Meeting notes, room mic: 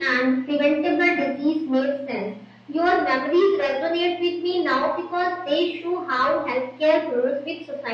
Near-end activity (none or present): none